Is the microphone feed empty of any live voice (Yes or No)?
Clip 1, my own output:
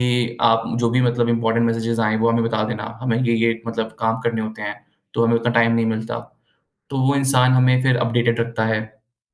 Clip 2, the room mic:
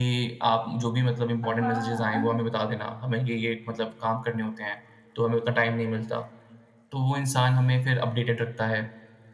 No